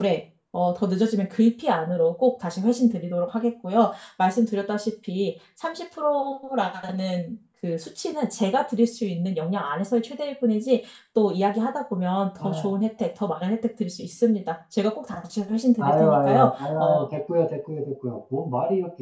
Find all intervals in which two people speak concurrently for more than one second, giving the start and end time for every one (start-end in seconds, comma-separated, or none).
15.8-17.1